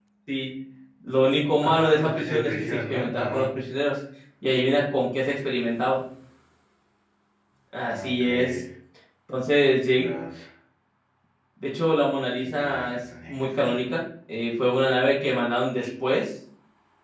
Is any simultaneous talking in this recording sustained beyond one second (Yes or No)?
Yes